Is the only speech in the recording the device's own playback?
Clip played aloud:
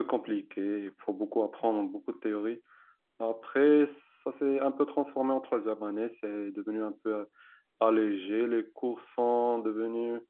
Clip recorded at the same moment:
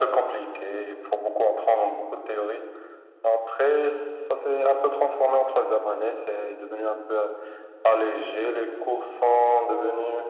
Yes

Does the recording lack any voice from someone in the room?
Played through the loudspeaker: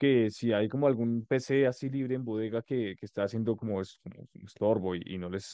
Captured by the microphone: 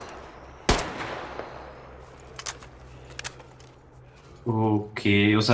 No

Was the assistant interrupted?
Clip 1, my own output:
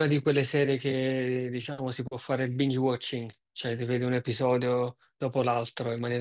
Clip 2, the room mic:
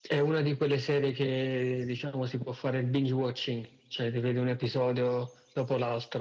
No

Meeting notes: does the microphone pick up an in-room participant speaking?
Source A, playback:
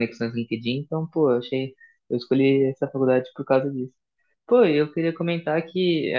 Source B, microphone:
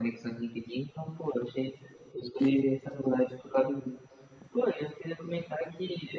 No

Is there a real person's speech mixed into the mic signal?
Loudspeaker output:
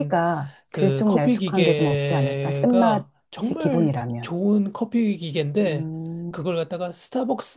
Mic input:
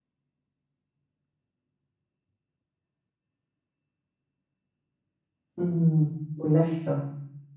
Yes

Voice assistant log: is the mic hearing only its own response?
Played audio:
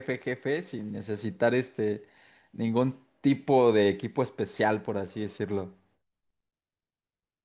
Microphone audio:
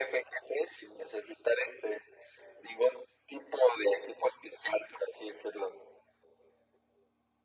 Yes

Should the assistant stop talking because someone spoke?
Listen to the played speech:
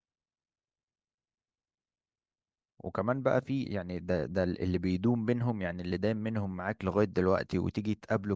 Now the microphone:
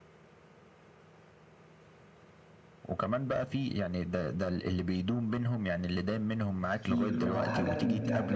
Yes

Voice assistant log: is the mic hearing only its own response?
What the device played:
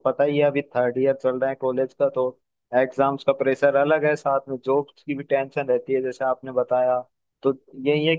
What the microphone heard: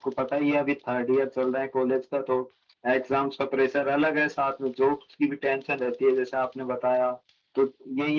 Yes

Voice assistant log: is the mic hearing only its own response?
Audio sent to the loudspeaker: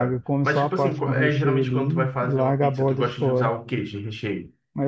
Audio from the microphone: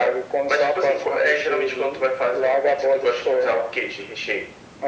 Yes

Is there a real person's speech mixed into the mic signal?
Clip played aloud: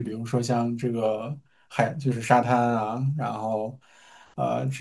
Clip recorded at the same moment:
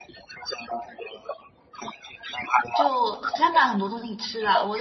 Yes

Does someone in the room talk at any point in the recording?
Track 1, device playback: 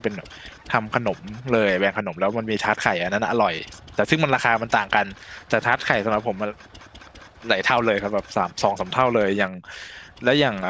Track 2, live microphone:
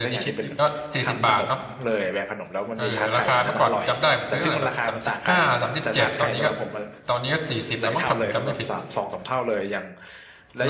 Yes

